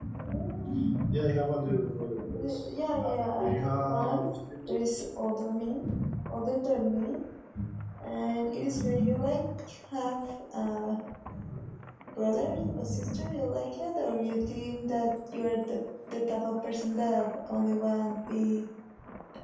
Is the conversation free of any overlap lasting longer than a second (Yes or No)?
No